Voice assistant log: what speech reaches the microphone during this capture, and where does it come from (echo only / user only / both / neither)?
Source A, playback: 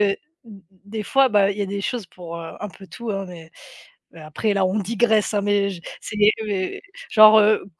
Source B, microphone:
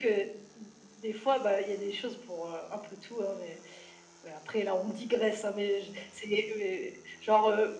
echo only